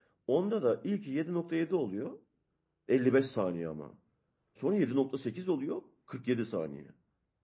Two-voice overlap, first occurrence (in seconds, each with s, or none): none